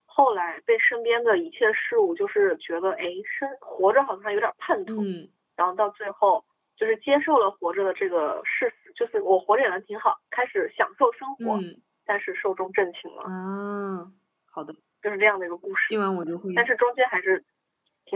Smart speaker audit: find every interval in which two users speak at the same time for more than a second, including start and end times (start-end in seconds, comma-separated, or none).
none